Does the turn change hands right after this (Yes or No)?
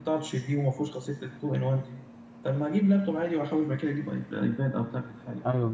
Yes